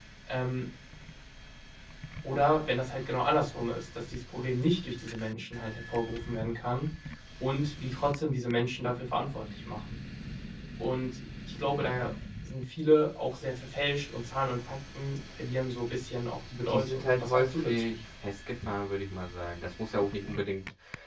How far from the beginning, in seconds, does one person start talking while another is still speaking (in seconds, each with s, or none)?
16.7 s